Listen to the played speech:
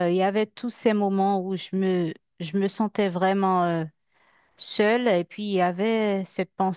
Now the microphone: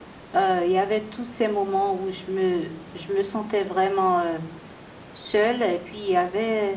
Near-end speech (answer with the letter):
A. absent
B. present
A